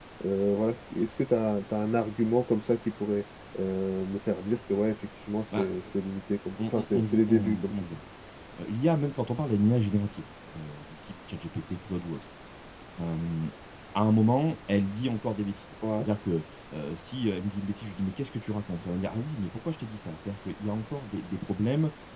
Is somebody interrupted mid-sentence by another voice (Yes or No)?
Yes